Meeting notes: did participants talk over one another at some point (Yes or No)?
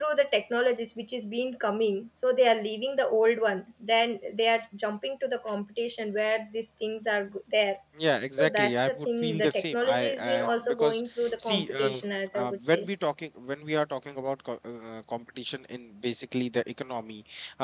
Yes